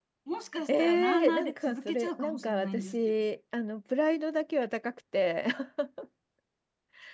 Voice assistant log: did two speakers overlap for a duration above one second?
Yes, from 0.7 s

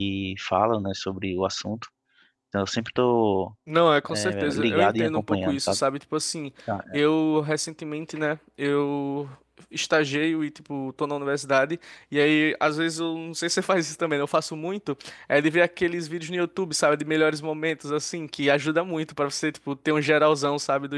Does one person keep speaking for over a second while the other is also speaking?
Yes, from 4.1 s

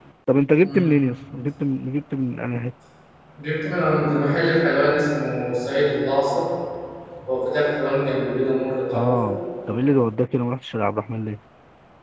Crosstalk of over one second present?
No

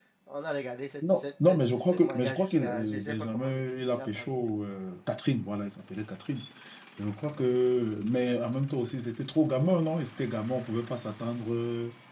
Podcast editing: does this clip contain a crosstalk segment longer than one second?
Yes, from 1.1 s

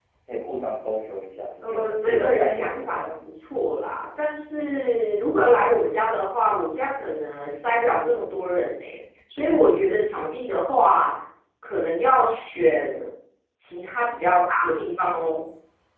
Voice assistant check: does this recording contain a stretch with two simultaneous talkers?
Yes, from 1.6 s

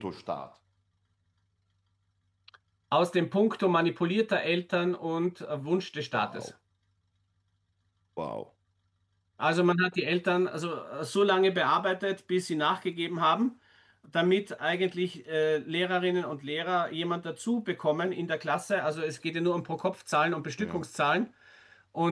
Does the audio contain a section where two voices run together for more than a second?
No

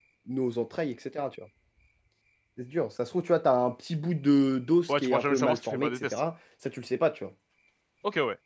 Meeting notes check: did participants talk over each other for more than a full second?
Yes, from 4.9 s

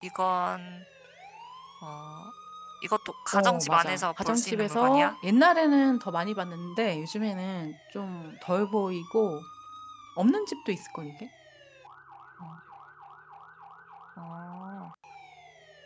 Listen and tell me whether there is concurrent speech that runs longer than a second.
Yes, from 3.3 s

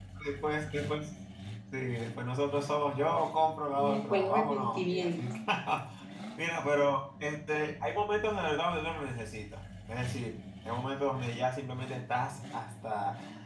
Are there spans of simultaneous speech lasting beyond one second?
Yes, from 3.7 s

